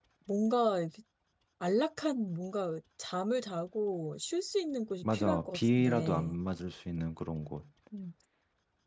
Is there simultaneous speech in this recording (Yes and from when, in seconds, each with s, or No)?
Yes, from 5.0 s